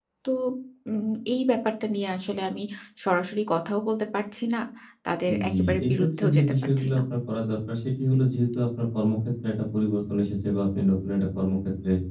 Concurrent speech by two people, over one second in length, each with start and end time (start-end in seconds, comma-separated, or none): 5.3-7.0